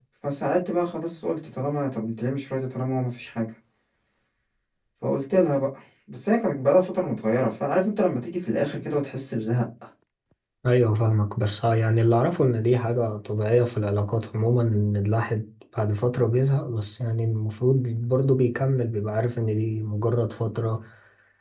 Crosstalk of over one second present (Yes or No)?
No